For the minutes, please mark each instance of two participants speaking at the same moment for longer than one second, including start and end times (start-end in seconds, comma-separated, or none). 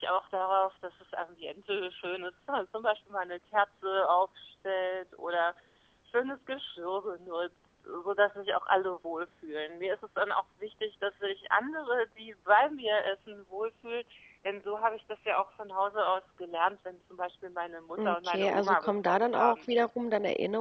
18.1-19.6